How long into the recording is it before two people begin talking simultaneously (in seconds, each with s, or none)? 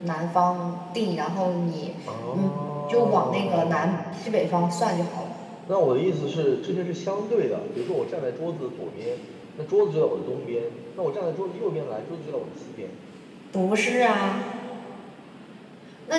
2.3 s